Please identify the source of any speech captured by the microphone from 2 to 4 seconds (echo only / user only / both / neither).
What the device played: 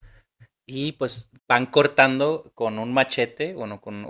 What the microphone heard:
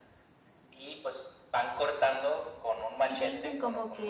both